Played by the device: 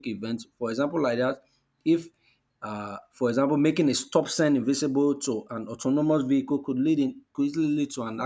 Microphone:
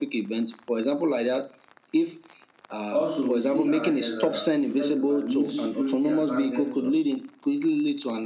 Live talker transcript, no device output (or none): Also, we see uh, there's a effect about new security attack vectors.